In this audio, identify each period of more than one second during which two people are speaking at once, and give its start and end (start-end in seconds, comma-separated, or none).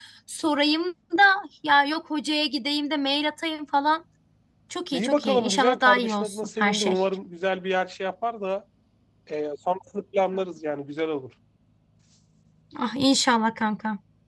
4.9-7.0